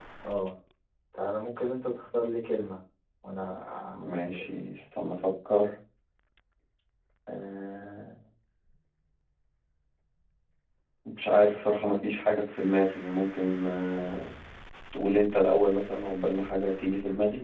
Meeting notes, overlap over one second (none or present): none